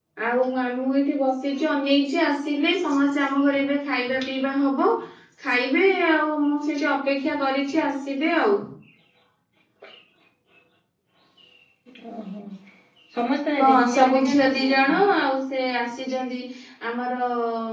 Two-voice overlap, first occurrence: 13.6 s

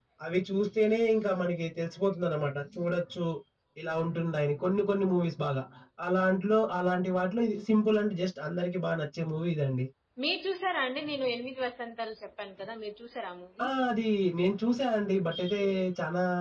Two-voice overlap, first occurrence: none

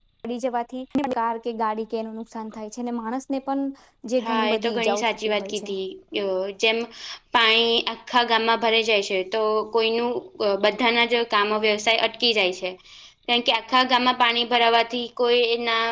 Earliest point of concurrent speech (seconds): 4.2 s

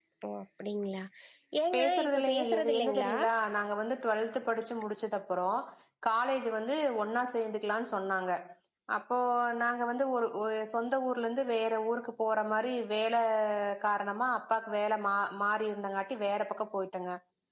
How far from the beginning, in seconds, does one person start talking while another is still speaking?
1.7 s

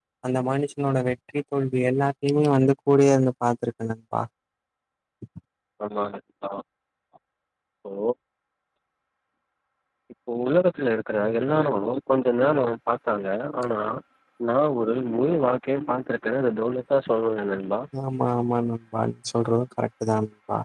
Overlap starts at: none

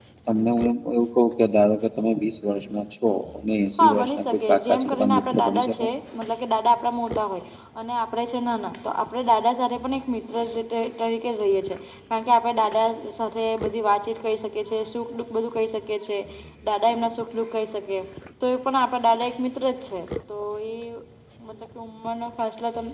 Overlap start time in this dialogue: 3.8 s

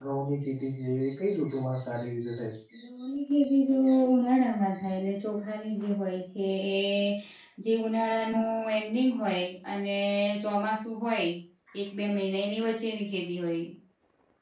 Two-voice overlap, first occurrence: none

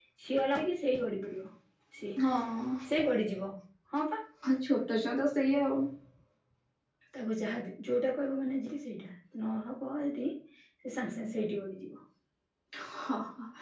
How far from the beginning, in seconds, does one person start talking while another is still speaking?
none

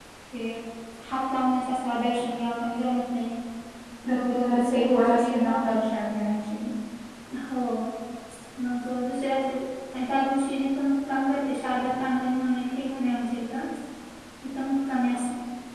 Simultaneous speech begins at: 4.1 s

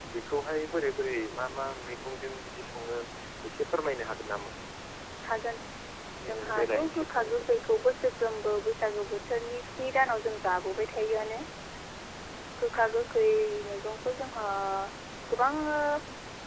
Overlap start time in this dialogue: 6.2 s

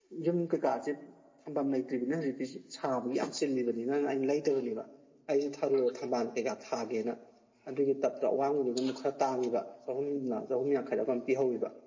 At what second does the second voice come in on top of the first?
none

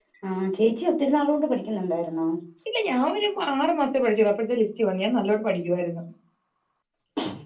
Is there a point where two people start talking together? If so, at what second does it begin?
none

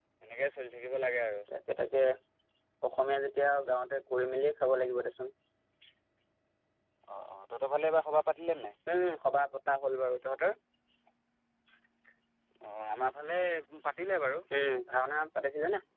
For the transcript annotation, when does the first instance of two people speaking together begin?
none

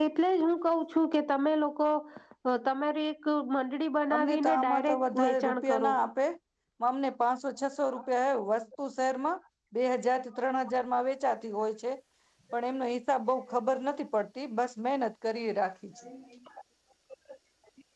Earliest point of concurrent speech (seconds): 4.1 s

